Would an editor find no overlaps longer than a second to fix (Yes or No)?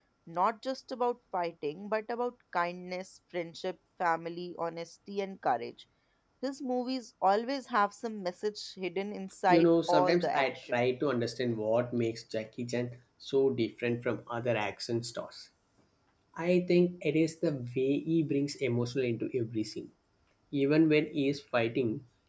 No